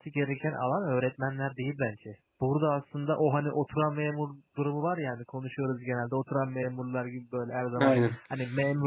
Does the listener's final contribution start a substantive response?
No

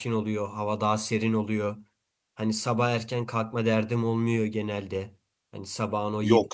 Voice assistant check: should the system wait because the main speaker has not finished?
Yes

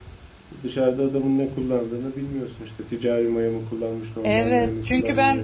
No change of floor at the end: No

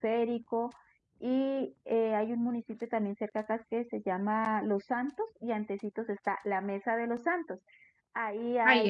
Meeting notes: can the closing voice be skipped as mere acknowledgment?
Yes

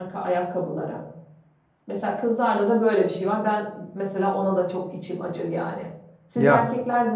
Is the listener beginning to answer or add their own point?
No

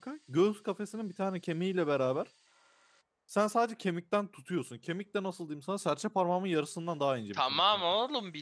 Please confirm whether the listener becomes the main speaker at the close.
Yes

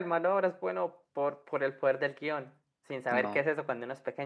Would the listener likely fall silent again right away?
Yes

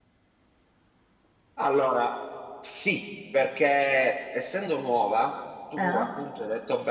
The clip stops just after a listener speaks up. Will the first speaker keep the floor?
Yes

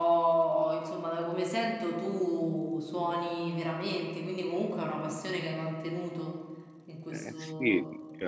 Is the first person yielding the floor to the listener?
Yes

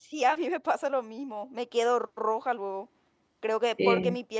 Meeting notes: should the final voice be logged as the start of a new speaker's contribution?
No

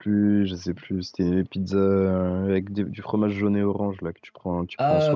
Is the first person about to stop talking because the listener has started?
Yes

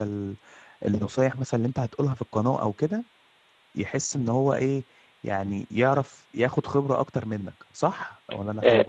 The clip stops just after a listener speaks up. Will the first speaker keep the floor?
No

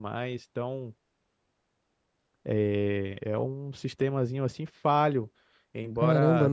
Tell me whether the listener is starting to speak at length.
Yes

